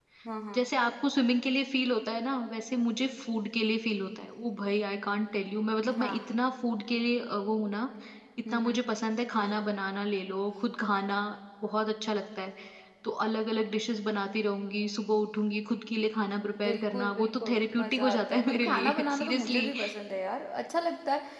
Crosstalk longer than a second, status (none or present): present